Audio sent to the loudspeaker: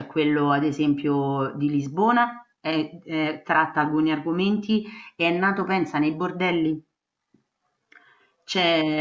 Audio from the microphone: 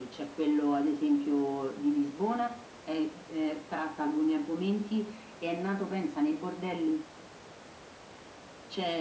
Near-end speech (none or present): none